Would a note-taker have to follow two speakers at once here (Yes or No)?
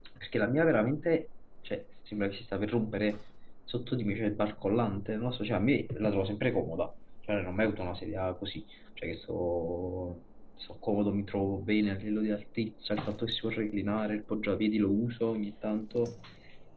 No